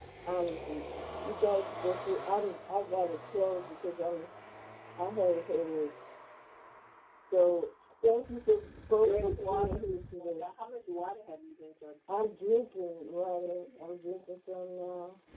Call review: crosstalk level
present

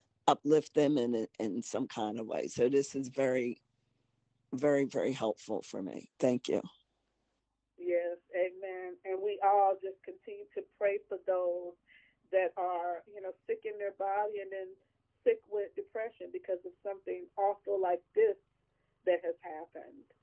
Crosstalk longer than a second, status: none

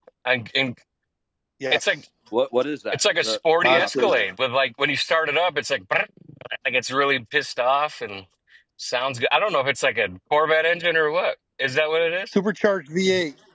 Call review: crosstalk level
present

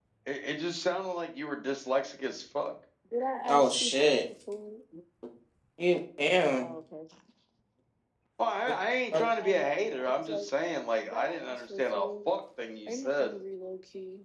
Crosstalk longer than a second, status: present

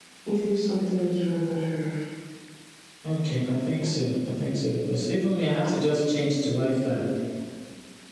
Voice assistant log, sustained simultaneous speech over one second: none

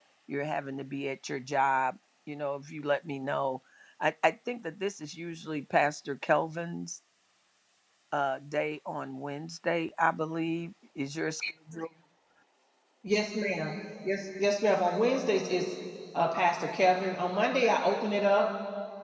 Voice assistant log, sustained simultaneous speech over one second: none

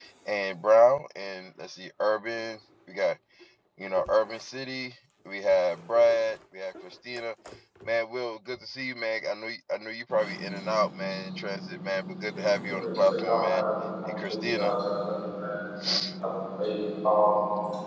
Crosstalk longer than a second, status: present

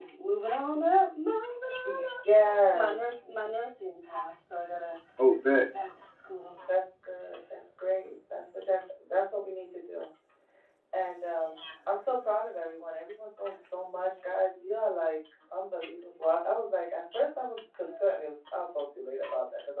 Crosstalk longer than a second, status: none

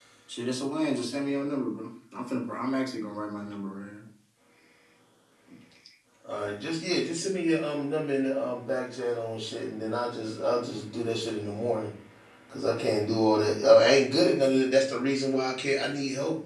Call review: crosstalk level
none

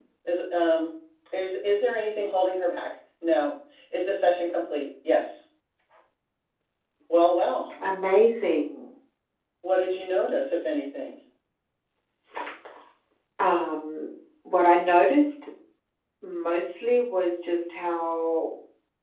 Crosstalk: none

